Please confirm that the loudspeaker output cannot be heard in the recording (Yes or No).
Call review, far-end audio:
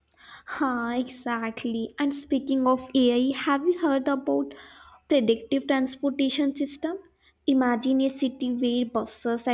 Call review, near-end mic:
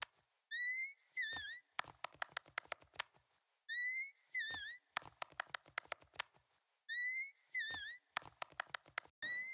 Yes